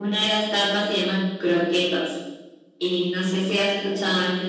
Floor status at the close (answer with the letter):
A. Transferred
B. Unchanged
A